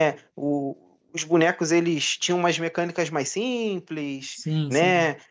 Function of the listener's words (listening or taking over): listening